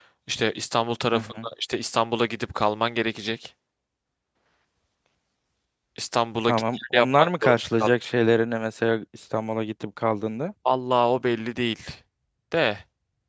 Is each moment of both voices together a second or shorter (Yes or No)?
No